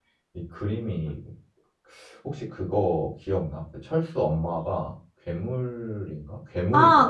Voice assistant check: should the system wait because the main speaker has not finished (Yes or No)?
No